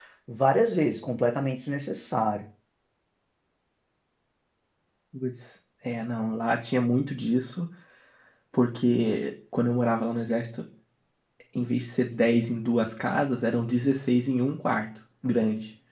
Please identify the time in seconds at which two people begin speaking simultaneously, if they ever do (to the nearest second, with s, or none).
none